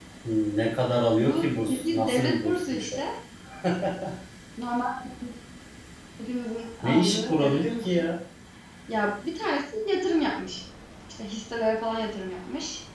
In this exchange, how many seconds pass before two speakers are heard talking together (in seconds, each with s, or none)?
1.2 s